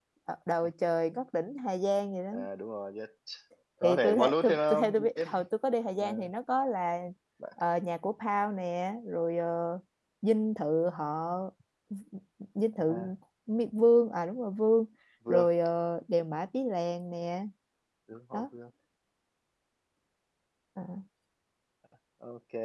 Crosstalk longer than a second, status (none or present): present